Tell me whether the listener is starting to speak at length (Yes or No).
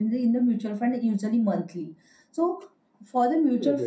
No